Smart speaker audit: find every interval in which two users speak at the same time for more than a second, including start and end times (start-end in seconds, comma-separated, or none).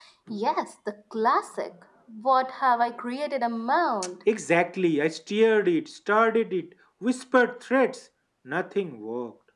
none